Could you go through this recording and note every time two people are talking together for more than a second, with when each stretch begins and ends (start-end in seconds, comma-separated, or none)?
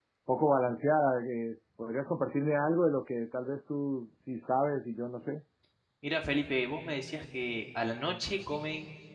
none